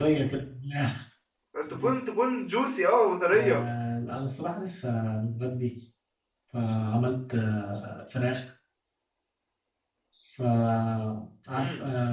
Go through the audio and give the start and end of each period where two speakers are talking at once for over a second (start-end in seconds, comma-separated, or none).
none